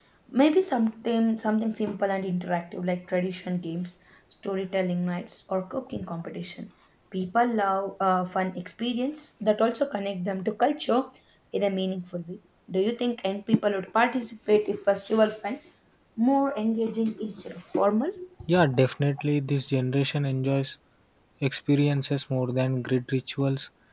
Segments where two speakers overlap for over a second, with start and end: none

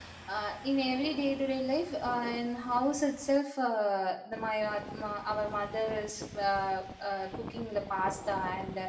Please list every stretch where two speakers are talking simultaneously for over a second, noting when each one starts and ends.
none

